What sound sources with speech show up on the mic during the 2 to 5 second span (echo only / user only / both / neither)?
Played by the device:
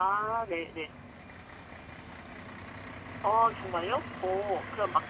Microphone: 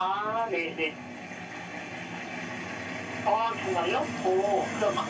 echo only